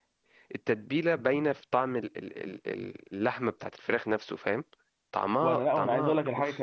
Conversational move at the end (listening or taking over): taking over